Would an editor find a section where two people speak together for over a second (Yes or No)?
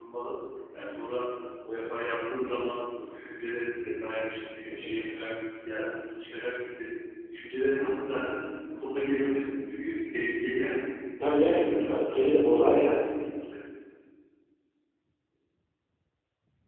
Yes